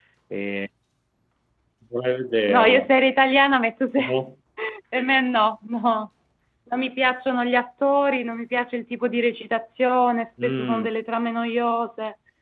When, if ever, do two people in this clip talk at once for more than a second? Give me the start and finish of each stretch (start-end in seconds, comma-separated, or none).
none